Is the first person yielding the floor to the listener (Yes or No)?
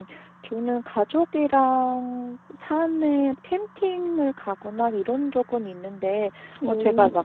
No